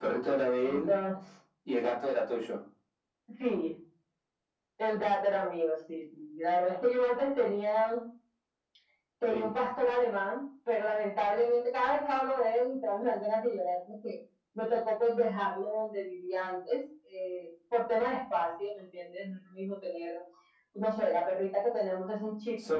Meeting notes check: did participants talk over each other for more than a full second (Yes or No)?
No